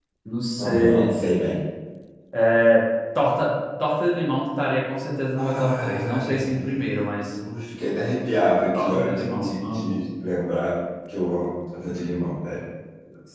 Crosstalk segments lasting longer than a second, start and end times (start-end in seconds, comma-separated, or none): 5.3-6.7, 8.7-10.0